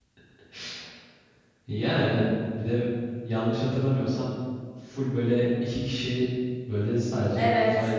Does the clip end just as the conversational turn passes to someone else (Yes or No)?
No